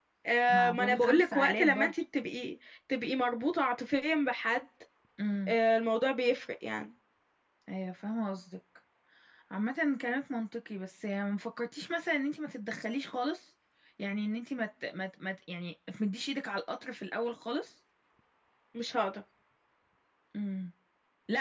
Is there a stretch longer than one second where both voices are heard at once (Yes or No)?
Yes